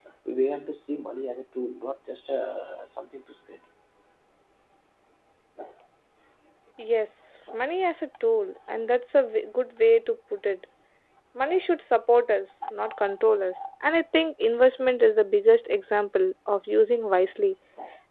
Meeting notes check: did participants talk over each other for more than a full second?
No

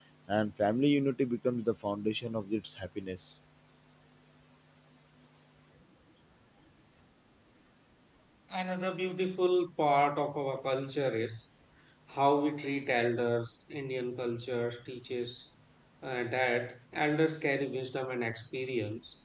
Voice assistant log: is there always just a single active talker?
Yes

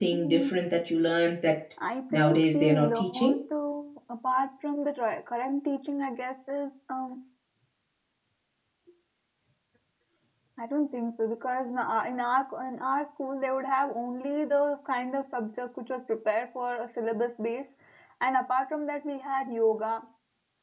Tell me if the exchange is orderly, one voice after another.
No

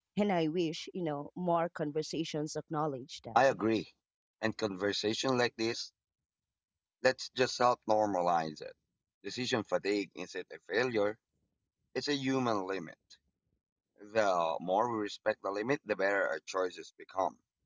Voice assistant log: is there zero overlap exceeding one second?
Yes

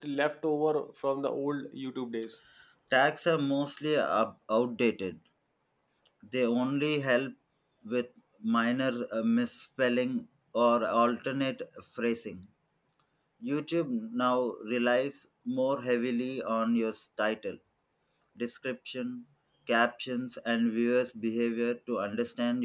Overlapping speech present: No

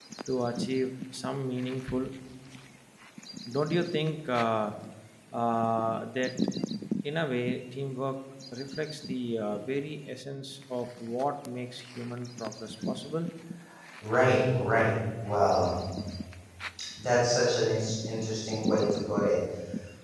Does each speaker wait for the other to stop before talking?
Yes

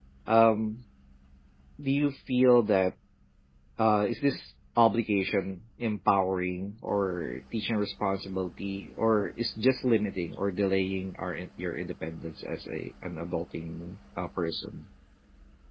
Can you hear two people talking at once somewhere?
No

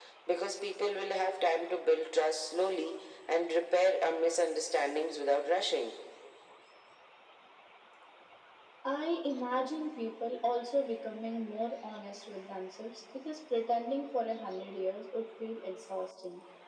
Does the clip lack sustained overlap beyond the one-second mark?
Yes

